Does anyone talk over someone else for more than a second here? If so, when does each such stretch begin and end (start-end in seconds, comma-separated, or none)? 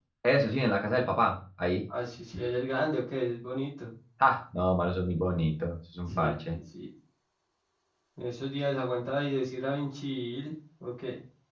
none